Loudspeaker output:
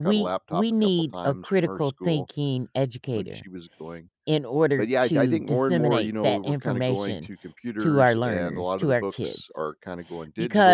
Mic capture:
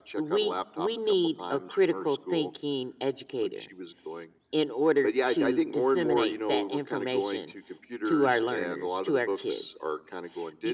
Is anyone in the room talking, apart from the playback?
No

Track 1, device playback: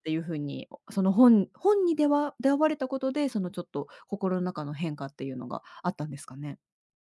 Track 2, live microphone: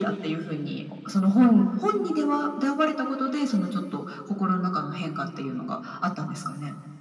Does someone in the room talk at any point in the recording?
No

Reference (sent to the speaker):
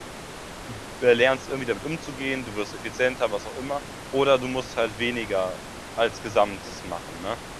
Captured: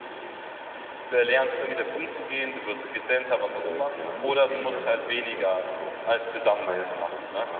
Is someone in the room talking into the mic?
Yes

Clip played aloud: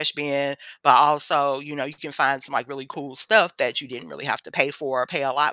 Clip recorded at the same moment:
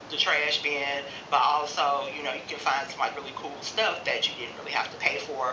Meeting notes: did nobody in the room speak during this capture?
Yes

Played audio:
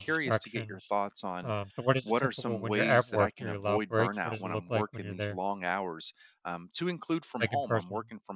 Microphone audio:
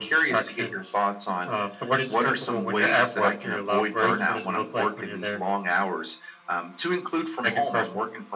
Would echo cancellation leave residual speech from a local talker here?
No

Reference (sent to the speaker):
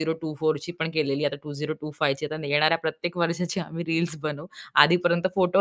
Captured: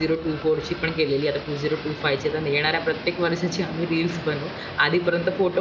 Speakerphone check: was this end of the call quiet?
Yes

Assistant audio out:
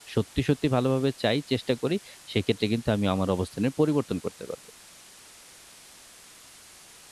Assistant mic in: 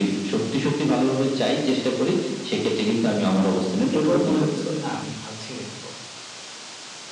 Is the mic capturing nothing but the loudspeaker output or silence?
No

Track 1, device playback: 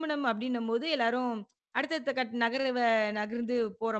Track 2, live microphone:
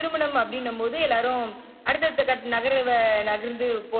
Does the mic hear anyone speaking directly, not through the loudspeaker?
No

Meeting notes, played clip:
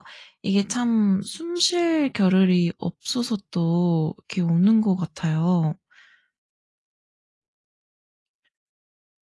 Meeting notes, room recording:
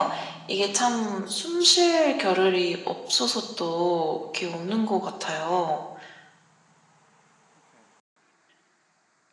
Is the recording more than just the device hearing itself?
No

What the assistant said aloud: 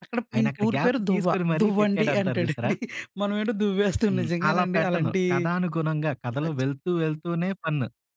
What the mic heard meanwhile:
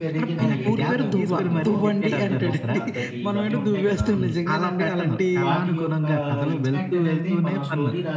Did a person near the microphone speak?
Yes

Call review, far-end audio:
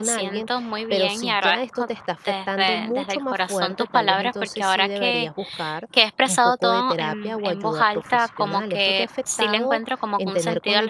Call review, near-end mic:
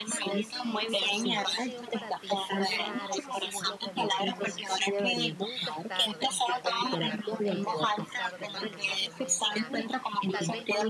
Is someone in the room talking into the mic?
Yes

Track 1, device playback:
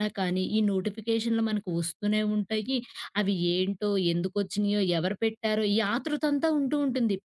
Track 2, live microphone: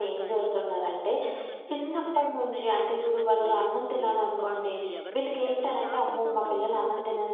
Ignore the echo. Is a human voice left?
Yes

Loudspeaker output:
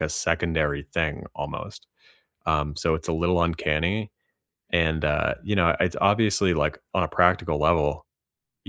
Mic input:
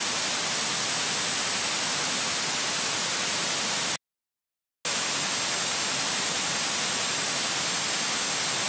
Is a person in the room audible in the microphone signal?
No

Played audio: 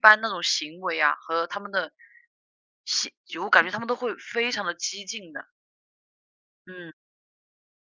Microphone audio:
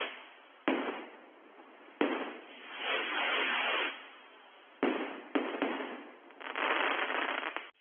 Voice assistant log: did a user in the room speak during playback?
No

